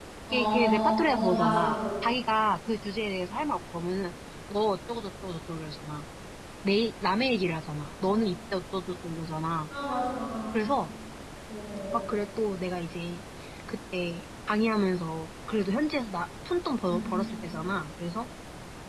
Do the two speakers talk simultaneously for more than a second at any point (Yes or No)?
Yes